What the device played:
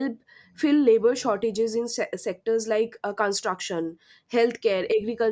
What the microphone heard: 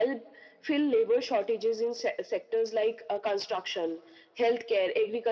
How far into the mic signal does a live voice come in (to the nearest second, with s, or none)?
none